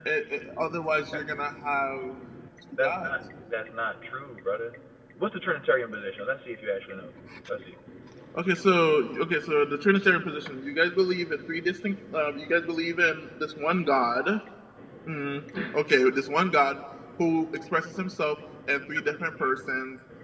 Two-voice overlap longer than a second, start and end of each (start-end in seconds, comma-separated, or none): none